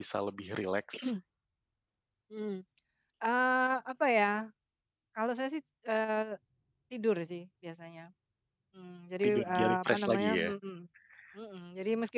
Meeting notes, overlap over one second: present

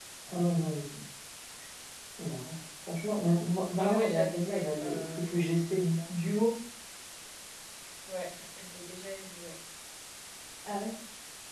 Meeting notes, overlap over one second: present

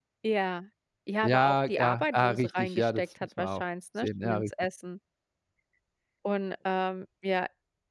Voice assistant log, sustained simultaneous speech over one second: present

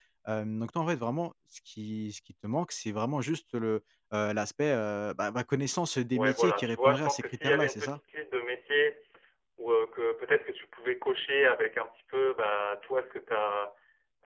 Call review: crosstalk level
present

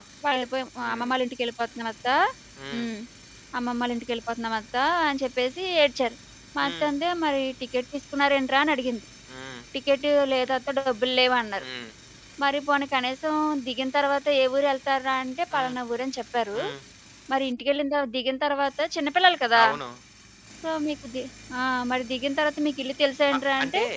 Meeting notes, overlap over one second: none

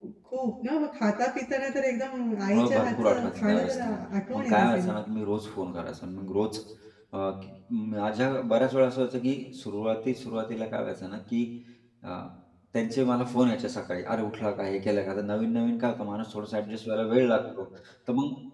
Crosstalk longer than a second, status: present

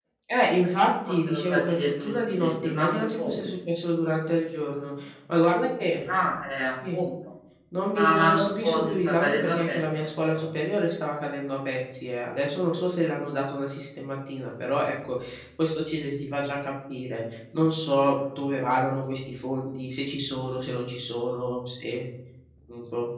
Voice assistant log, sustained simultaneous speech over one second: present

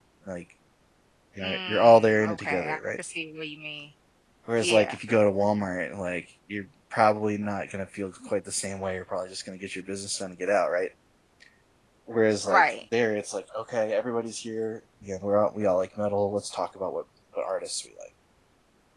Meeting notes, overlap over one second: present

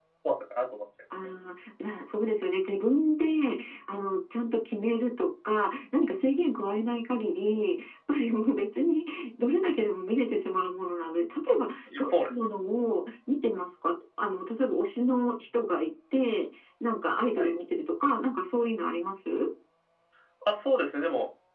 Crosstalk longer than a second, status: none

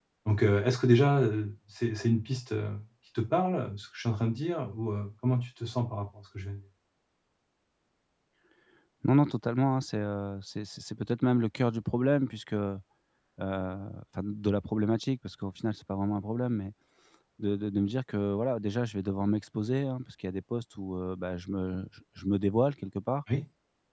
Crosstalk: none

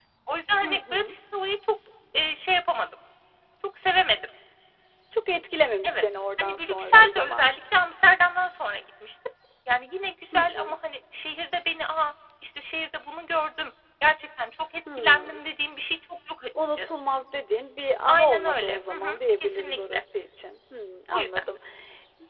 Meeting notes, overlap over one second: present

